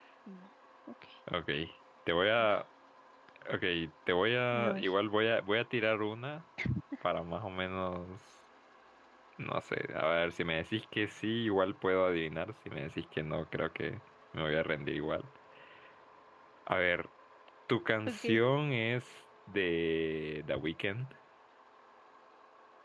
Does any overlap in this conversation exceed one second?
No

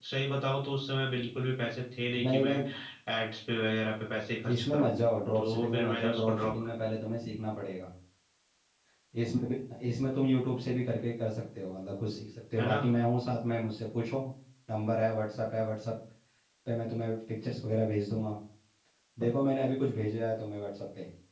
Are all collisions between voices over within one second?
No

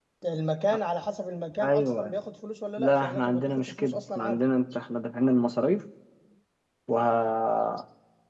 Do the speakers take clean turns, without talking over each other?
No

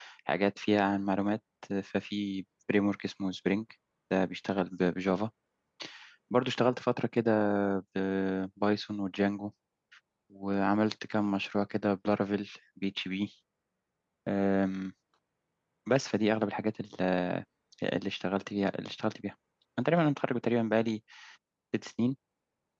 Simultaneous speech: No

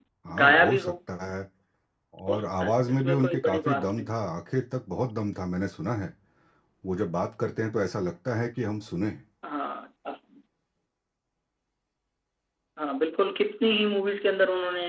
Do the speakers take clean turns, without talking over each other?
No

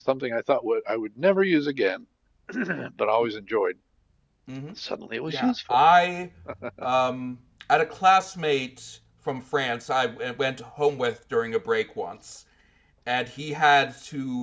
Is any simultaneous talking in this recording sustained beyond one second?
No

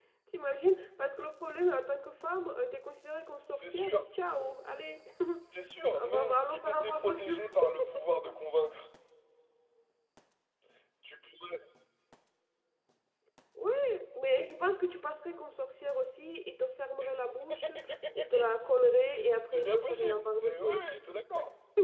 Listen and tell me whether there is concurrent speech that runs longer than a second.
Yes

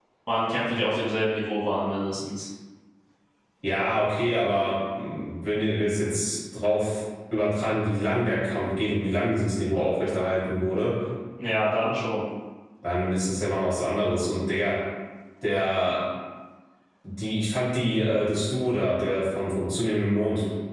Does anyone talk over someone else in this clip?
No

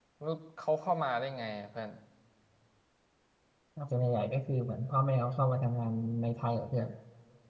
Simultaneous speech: No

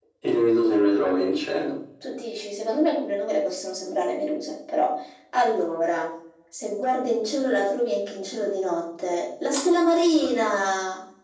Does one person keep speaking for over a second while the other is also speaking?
No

